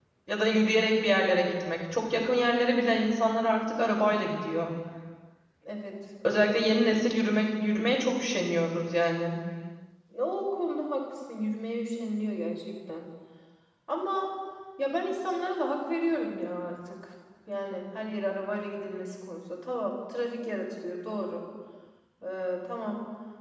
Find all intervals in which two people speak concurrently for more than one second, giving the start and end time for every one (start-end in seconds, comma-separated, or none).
none